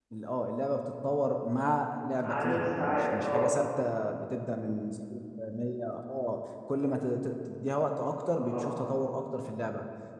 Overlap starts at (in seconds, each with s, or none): 2.2 s